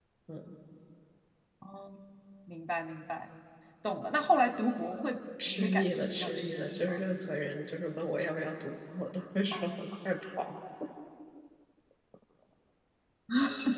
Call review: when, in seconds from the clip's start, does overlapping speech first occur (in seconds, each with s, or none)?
5.4 s